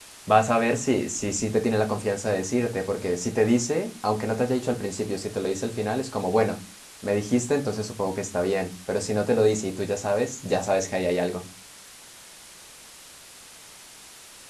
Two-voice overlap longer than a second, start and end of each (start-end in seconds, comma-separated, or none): none